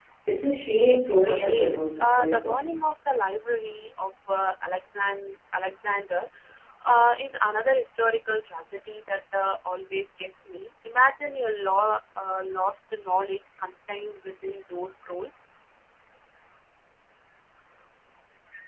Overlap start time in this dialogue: 1 s

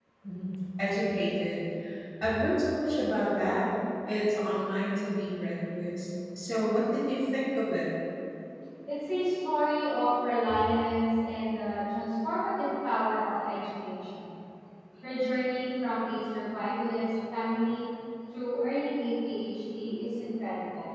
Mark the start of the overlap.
none

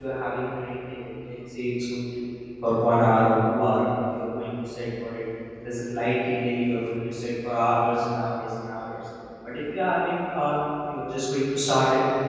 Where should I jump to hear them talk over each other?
none

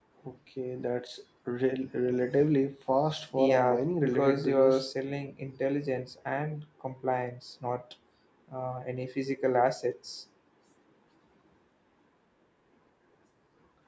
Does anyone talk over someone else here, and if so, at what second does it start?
3 s

